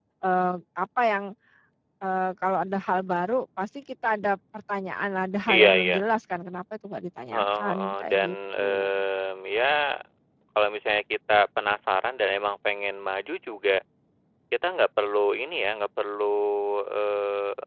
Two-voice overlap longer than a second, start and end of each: 7.3-8.9

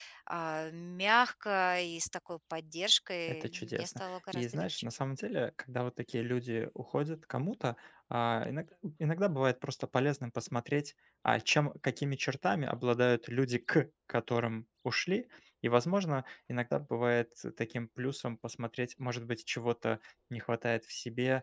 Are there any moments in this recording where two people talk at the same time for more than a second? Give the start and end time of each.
3.4-4.9

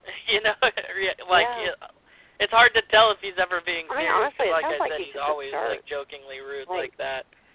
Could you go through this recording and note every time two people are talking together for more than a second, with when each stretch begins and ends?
3.9-5.8

